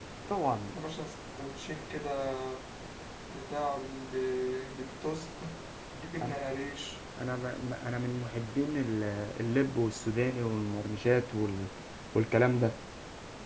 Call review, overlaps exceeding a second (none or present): none